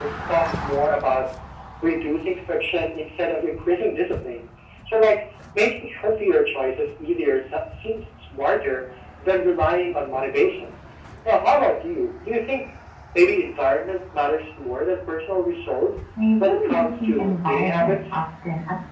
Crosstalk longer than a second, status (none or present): present